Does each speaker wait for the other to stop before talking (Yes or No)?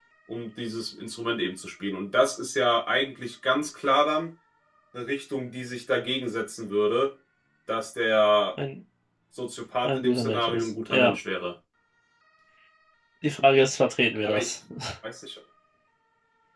No